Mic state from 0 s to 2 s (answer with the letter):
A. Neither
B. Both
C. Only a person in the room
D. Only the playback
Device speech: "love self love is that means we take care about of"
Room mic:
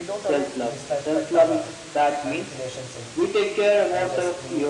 B